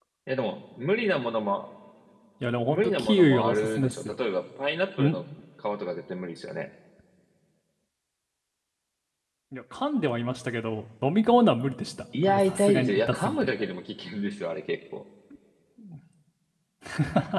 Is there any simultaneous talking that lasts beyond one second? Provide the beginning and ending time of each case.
2.7-4.1, 12.2-13.5

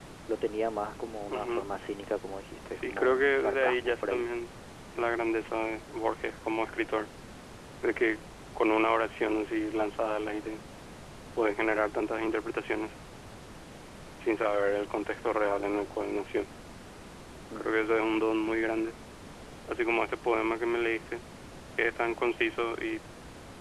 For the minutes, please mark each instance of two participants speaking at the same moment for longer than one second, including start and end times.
2.7-4.3

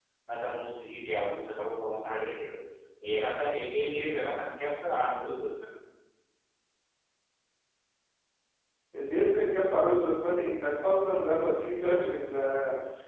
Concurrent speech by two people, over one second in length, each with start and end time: none

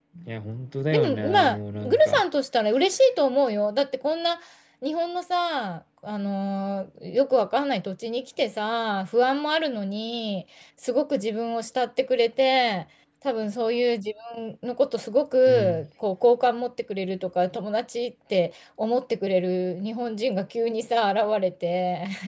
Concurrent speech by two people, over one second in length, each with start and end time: 0.9-2.2

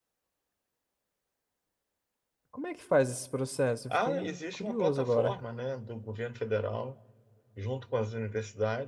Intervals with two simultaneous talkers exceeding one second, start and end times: 3.9-5.4

